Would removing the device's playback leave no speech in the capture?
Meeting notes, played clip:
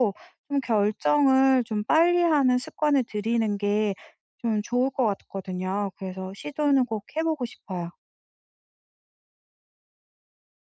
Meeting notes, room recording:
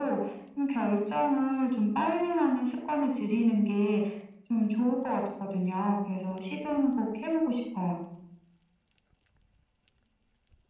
Yes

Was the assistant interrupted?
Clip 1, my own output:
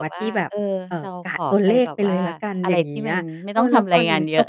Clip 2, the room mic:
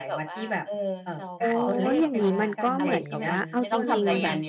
Yes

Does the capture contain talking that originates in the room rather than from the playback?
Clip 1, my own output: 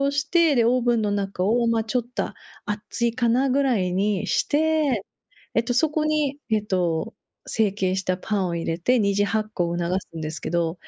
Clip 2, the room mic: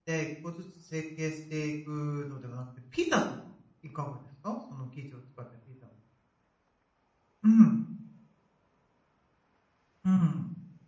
Yes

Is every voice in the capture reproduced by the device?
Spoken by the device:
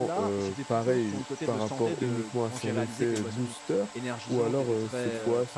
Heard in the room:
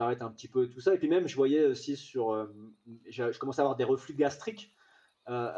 No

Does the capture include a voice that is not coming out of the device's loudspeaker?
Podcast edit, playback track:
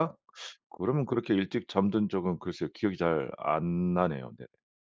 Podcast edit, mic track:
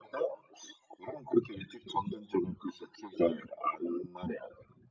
No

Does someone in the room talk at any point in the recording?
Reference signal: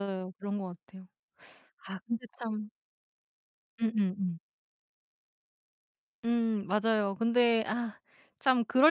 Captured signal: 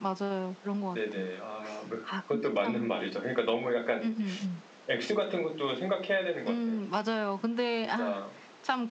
Yes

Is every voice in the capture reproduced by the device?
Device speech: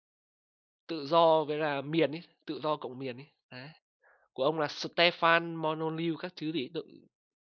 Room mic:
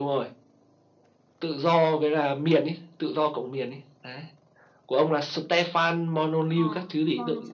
No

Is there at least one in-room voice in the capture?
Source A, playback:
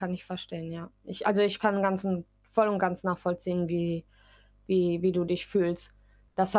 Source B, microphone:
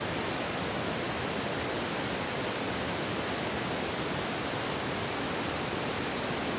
No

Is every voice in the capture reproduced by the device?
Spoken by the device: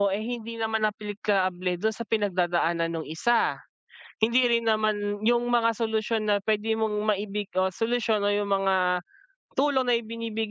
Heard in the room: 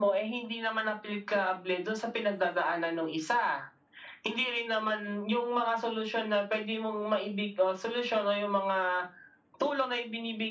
Yes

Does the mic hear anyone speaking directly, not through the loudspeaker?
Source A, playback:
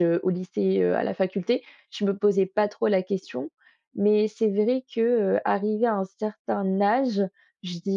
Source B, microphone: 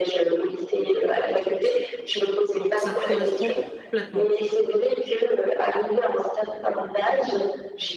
Yes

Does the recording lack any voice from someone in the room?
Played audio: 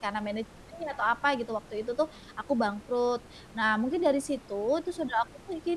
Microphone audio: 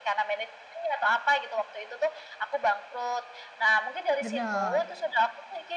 No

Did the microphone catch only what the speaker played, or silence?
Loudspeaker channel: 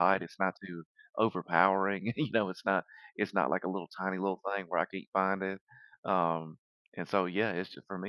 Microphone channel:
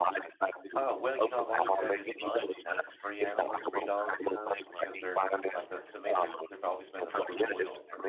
No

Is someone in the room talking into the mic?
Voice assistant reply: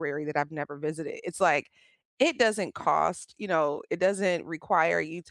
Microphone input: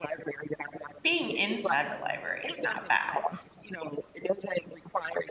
Yes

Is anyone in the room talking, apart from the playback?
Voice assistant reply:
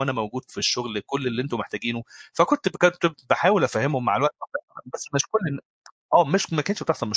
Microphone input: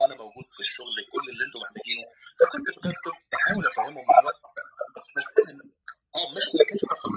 No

